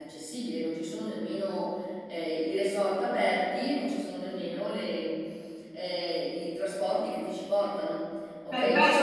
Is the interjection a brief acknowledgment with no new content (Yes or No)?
No